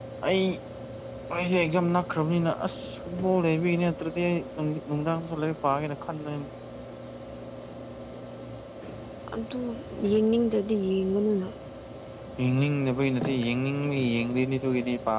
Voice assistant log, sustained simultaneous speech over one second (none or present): none